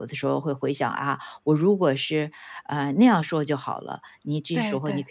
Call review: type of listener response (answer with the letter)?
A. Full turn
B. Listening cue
B